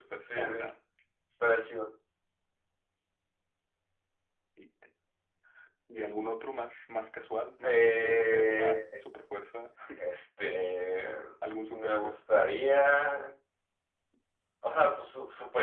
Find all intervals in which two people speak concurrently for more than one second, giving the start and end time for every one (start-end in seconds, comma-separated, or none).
7.6-9.0